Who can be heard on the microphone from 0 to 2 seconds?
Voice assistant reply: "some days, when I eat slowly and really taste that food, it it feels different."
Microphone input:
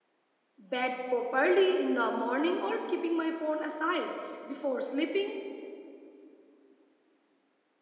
user only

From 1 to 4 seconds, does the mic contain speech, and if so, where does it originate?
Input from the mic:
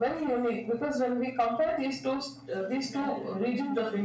both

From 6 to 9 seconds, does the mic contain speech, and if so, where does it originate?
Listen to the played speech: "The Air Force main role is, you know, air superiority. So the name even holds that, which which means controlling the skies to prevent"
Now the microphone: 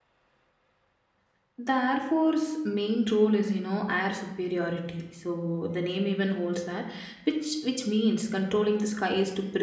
echo only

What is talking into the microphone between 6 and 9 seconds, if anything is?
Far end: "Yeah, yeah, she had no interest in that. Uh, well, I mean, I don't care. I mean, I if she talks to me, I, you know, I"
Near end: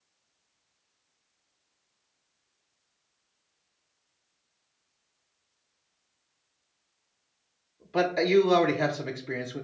user only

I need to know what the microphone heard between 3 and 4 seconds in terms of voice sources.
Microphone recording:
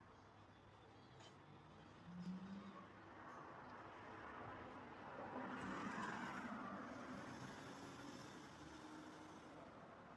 neither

